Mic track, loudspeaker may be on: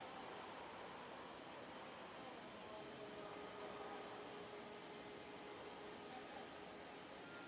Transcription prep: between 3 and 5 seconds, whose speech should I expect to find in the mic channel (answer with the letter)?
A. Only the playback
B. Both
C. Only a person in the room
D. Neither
D